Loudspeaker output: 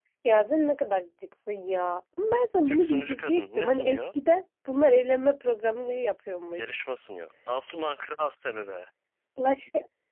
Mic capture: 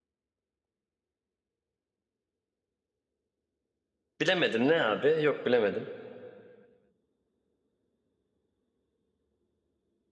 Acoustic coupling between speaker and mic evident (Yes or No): No